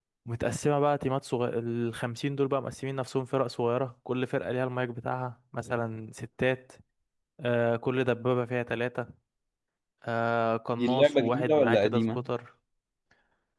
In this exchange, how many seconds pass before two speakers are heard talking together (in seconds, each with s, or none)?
10.8 s